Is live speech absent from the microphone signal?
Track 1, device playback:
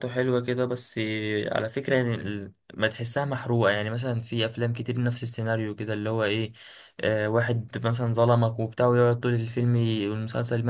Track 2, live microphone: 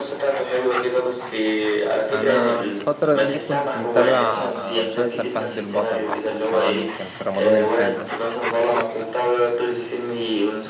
No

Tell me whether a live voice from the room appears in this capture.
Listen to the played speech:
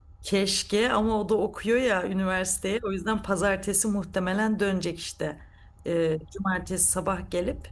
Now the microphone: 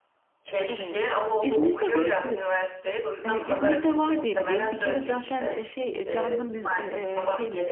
Yes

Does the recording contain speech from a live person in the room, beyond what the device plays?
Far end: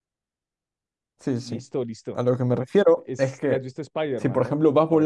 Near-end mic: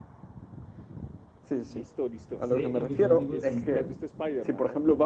Yes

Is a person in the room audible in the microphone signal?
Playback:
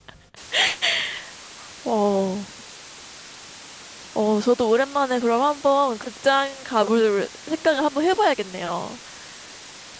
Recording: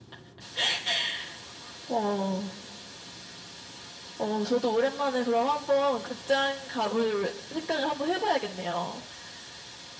No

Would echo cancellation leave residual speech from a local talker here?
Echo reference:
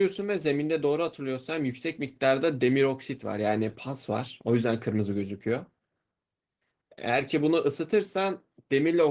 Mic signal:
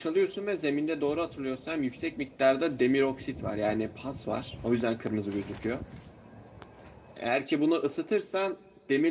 No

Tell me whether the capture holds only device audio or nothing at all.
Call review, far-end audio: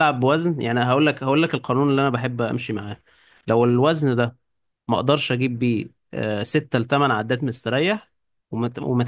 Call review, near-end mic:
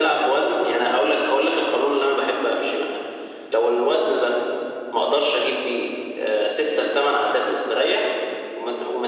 Yes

